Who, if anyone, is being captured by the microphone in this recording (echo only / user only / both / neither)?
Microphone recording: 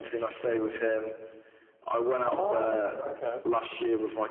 both